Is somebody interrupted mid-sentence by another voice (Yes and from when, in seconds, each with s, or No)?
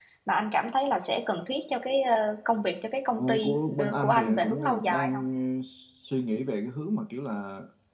Yes, from 3.2 s